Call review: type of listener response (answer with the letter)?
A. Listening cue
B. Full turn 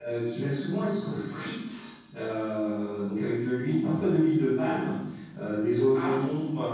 A